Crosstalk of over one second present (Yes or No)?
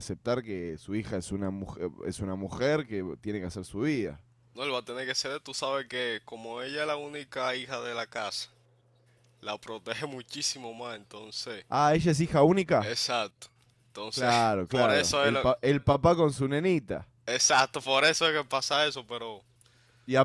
Yes